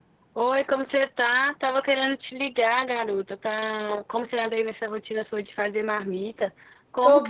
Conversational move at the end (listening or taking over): listening